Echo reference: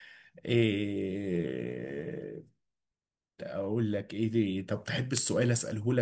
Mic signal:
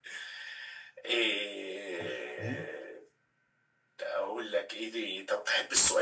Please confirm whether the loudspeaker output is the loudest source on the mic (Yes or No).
Yes